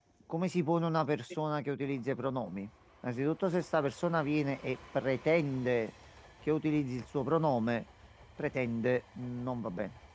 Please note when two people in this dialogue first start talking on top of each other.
none

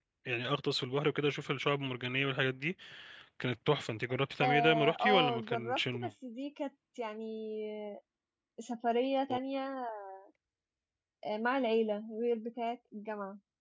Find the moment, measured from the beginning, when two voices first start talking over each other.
4.4 s

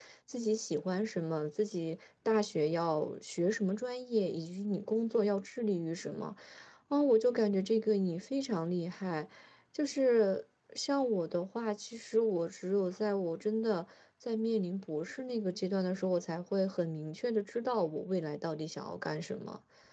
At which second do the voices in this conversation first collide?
none

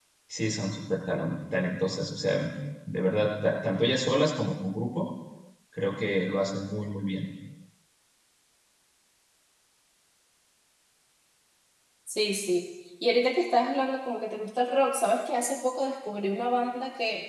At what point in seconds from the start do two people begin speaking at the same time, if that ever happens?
none

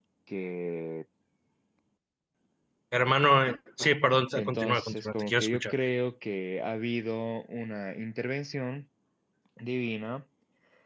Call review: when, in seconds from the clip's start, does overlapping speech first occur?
4.3 s

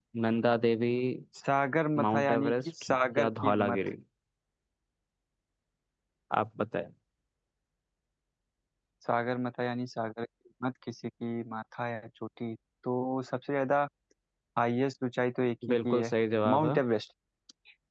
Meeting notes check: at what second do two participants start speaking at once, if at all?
2.0 s

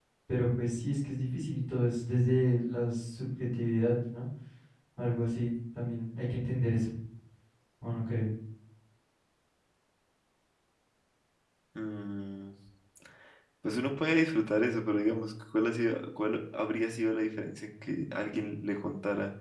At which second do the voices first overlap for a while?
none

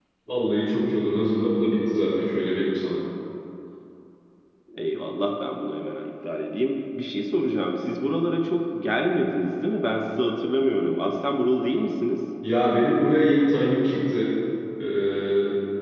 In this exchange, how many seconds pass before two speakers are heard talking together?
none

